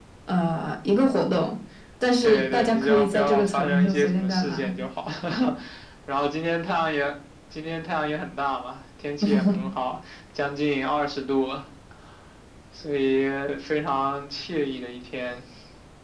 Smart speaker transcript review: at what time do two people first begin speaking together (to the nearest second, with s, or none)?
2 s